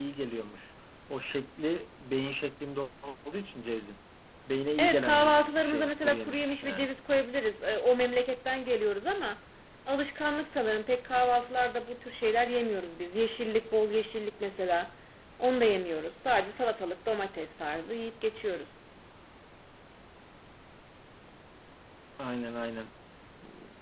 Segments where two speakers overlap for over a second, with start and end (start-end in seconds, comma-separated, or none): 4.8-6.9